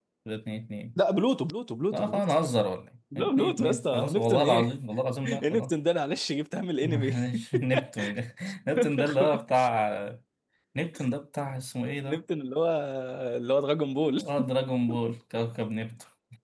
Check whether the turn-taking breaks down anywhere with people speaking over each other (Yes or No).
Yes